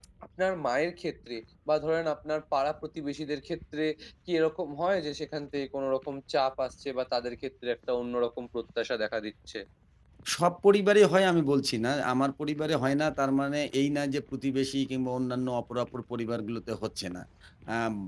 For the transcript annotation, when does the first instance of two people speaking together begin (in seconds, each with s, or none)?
none